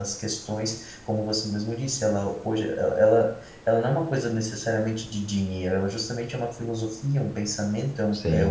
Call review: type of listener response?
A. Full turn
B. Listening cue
B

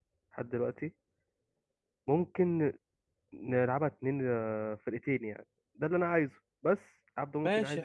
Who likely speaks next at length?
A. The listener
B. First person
A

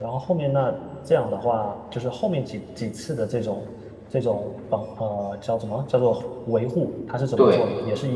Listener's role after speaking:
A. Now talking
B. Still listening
B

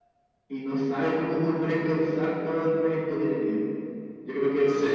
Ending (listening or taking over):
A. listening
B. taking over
A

